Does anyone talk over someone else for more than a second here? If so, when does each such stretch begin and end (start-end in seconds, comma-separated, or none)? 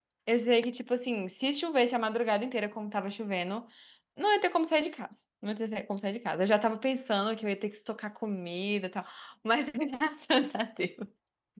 none